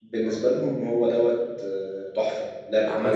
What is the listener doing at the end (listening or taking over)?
taking over